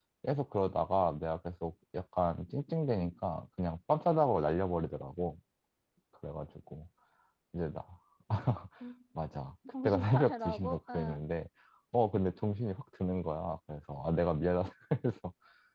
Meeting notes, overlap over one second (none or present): present